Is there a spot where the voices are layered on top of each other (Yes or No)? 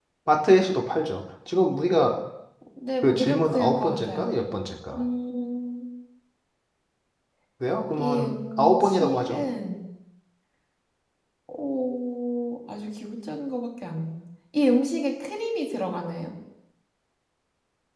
Yes